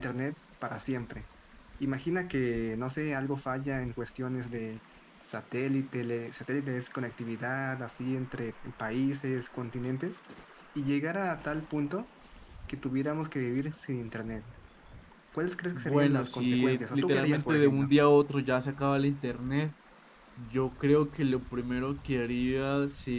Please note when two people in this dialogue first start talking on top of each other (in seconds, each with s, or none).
15.8 s